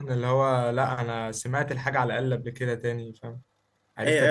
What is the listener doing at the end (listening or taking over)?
taking over